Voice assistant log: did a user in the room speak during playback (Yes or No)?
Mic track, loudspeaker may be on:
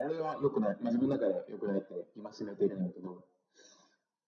No